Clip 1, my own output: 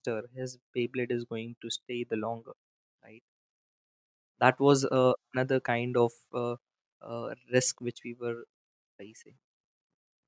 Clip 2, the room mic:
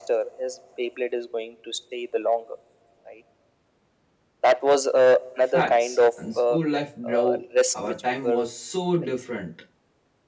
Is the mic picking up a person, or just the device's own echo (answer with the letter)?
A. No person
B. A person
B